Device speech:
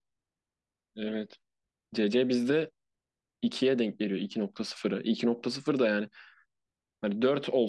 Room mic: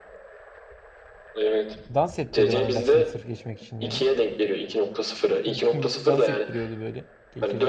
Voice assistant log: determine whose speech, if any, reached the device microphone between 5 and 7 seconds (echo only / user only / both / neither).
both